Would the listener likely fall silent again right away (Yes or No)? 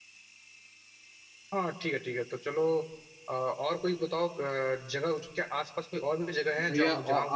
No